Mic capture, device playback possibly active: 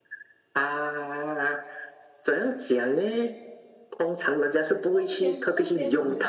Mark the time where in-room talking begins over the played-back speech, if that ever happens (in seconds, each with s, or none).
4.9 s